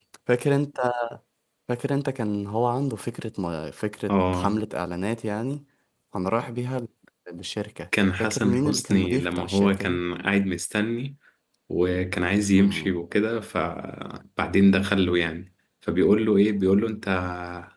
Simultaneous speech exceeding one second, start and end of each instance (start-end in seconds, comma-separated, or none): 8.2-10.0